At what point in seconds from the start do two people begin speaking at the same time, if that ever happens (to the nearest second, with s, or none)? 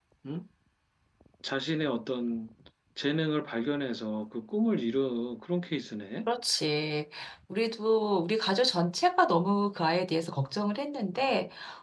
none